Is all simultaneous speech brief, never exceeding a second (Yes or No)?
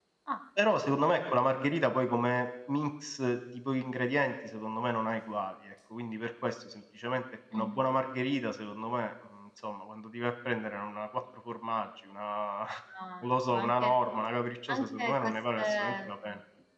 No